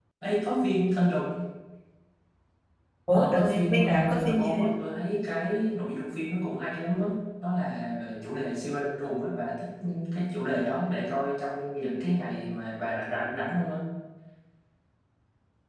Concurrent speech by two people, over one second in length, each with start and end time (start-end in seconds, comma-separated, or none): 3.1-4.8